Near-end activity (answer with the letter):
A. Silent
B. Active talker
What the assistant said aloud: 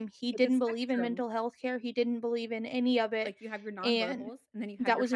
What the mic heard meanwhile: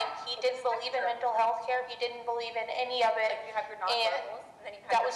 A